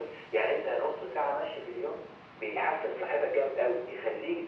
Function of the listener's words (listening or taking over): listening